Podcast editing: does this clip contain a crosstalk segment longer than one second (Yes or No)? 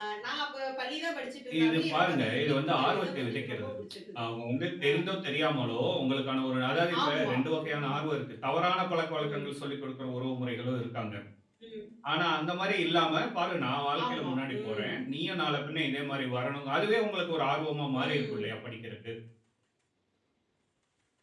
Yes